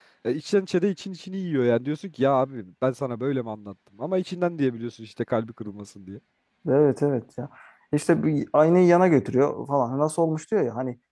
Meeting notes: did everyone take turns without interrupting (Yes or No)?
Yes